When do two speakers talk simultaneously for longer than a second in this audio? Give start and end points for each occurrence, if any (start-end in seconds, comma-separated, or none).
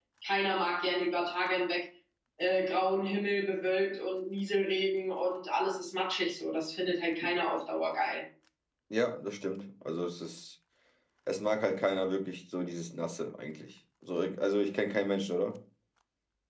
none